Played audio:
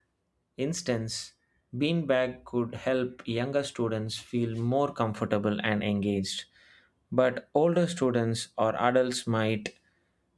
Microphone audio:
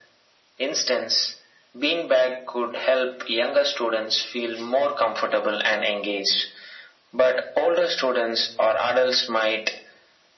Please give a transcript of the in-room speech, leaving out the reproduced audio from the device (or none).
none